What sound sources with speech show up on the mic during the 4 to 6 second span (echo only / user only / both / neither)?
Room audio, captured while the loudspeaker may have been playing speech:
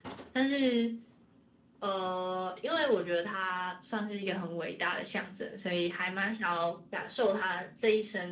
echo only